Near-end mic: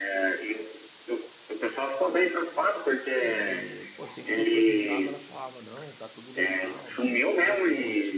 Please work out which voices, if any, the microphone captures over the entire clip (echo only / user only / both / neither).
both